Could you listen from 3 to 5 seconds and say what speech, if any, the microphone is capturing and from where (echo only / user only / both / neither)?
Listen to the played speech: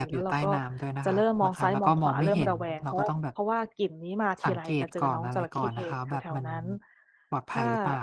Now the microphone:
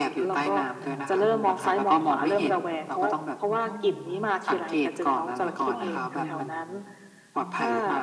both